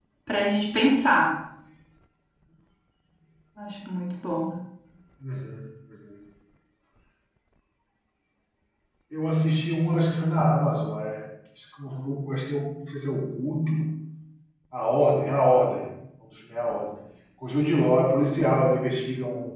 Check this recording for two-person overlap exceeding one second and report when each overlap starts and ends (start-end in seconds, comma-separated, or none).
none